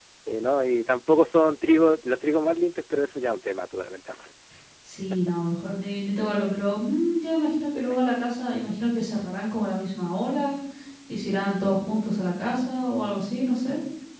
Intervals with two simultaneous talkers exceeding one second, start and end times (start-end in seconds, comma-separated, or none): none